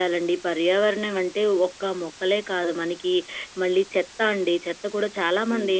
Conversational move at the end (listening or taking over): listening